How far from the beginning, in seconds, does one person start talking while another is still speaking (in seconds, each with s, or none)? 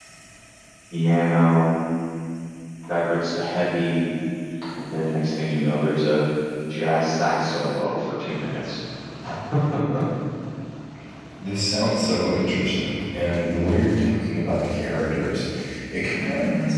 none